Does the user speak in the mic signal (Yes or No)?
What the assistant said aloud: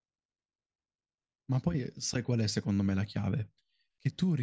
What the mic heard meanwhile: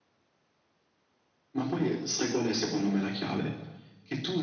No